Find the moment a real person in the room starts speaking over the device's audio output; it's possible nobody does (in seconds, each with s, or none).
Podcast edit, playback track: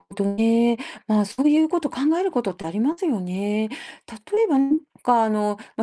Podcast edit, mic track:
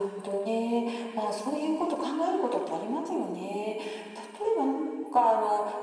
none